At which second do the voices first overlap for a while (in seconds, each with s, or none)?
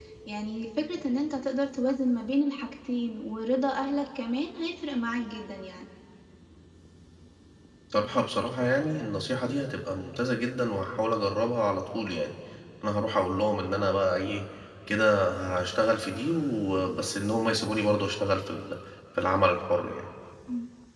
none